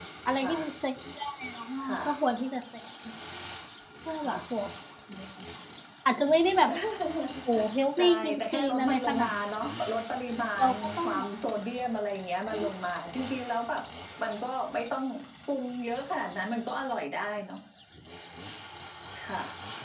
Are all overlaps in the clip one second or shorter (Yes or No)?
No